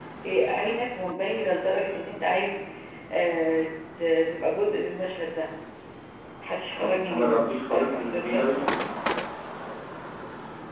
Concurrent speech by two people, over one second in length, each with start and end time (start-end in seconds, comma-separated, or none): 6.8-8.4